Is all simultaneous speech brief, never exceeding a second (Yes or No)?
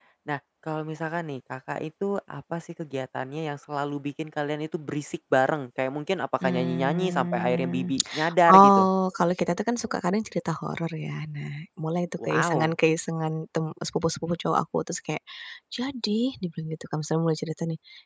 No